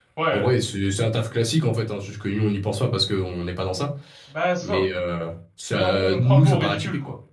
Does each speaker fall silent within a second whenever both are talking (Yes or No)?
No